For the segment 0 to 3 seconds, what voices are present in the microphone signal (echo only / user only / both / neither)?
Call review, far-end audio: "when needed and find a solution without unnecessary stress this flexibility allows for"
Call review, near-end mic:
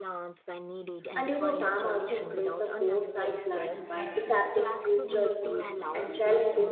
both